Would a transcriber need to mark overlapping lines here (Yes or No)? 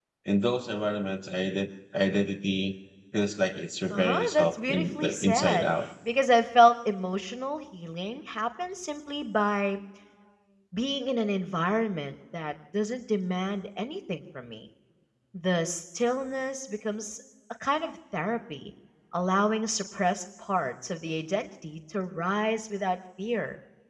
Yes